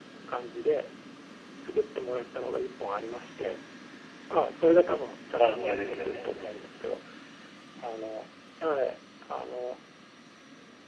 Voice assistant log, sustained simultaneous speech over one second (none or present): present